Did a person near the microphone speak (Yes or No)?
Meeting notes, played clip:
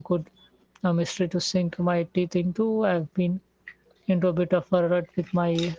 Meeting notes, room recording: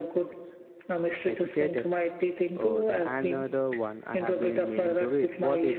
Yes